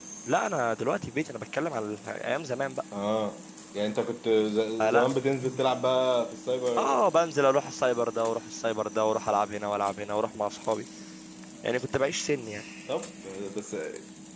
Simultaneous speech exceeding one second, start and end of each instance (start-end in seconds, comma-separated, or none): none